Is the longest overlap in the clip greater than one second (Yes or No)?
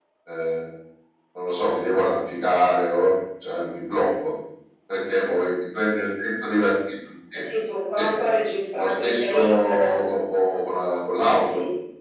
Yes